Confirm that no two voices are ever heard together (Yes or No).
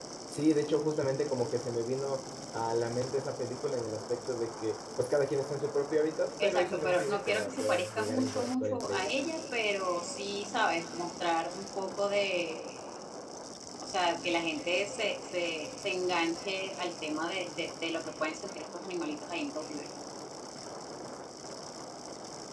No